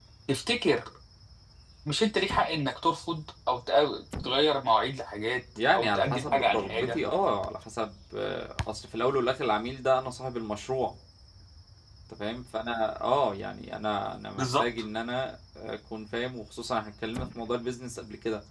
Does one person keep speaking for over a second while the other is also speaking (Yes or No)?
Yes